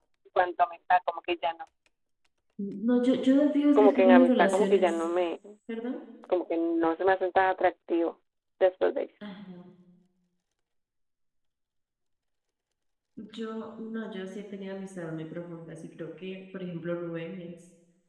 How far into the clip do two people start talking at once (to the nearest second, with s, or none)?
4 s